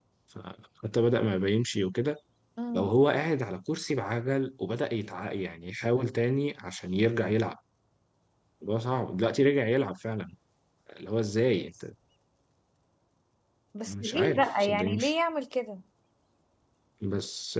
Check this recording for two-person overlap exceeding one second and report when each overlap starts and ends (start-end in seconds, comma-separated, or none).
13.9-15.1